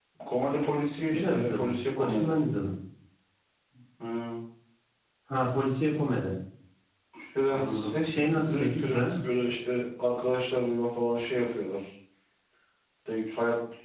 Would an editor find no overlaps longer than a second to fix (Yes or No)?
No